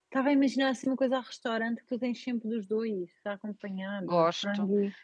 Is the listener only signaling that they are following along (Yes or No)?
No